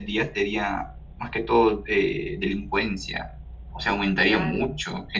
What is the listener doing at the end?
listening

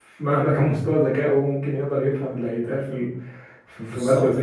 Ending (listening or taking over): taking over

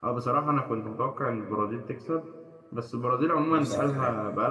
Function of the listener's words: listening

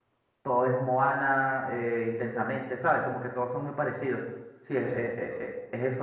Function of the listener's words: listening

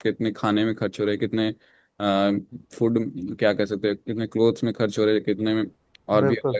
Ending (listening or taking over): listening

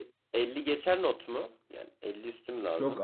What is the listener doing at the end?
taking over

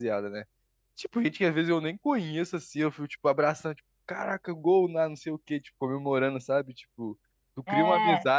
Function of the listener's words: listening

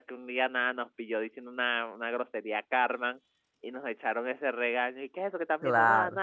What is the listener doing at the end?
listening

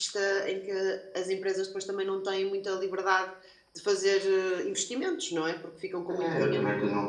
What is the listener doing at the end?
taking over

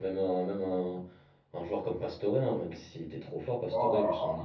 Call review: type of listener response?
listening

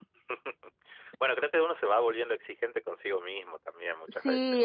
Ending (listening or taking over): taking over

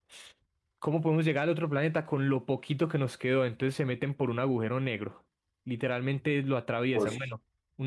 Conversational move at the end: listening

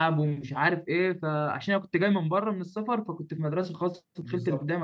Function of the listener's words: taking over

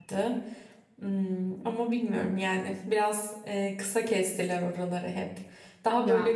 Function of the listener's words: listening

